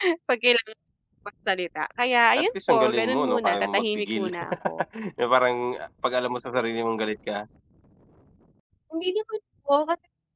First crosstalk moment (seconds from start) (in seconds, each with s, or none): 2.4 s